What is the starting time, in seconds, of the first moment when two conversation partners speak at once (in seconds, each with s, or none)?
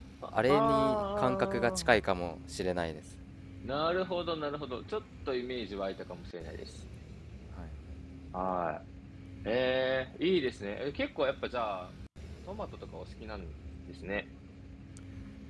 0.5 s